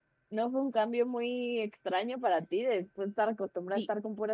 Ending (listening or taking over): taking over